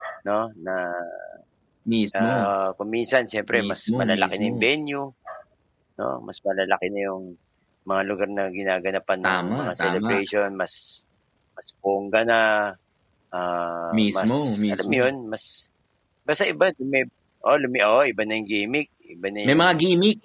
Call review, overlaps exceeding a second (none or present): present